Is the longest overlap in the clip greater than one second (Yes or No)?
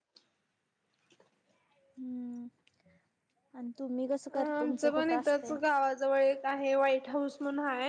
Yes